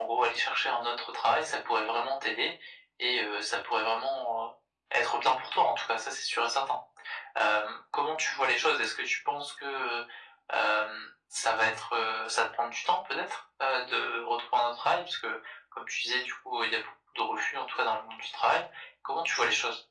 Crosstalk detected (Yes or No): No